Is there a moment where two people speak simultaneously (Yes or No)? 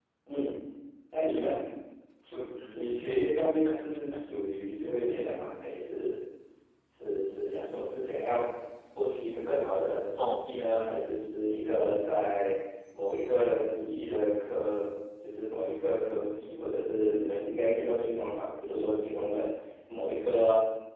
Yes